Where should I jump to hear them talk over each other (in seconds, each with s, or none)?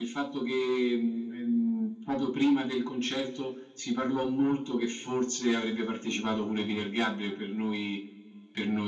none